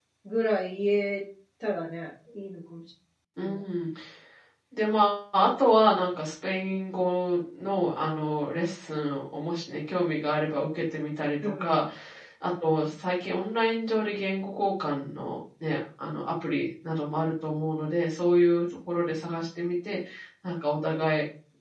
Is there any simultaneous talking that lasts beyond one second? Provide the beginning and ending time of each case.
none

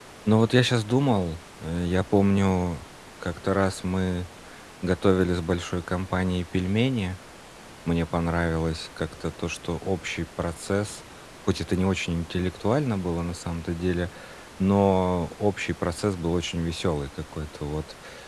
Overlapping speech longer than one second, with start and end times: none

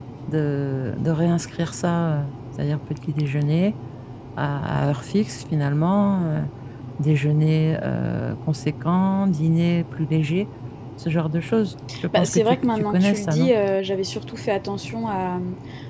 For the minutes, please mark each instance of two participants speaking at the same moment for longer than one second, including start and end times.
12.1-13.5

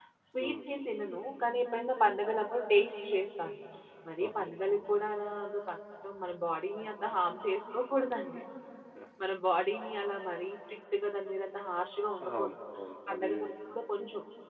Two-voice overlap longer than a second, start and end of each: none

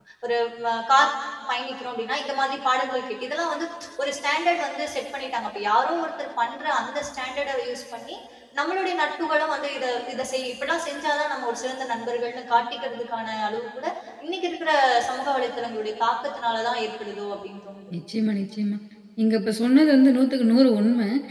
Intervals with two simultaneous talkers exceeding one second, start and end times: none

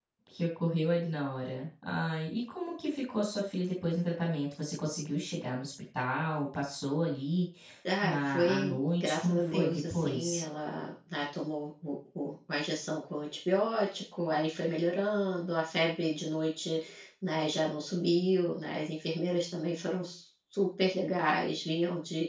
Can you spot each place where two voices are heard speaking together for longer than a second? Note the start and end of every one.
8.0-10.4

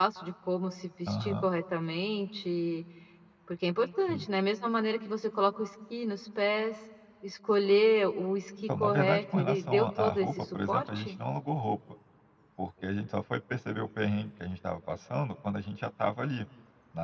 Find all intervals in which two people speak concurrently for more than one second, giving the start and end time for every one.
8.8-11.2

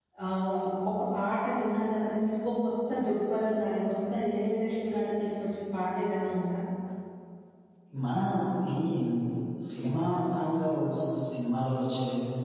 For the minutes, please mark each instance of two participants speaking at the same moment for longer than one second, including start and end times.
none

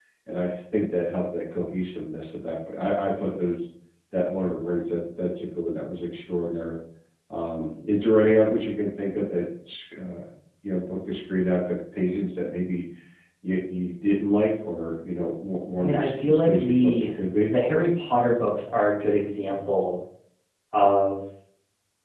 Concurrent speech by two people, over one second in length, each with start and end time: 15.8-17.1

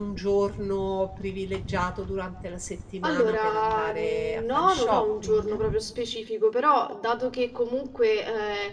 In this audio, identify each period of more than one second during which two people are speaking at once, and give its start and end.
3.0-5.6

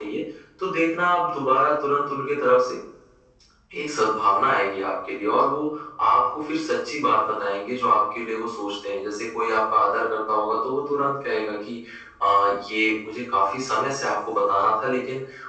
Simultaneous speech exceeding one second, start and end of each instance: none

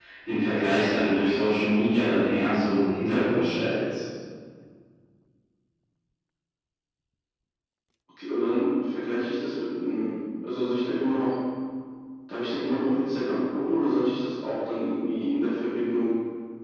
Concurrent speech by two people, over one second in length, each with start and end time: none

